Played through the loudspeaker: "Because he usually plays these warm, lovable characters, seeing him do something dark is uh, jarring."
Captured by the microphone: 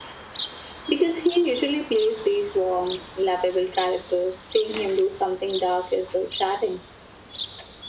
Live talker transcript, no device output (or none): none